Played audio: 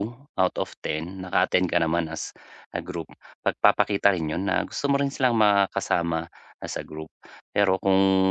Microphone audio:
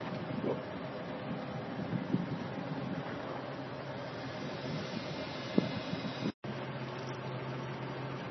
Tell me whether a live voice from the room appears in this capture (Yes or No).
No